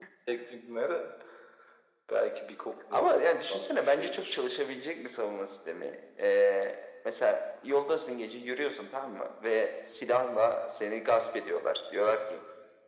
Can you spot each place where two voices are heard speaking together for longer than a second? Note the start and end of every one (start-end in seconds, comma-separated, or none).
2.9-4.4